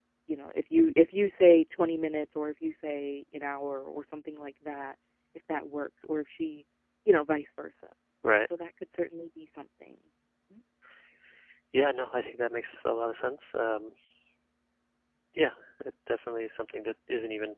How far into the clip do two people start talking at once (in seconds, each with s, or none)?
none